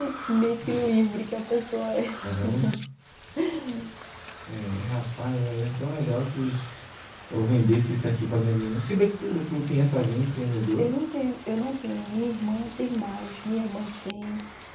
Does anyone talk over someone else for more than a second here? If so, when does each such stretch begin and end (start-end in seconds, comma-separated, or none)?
none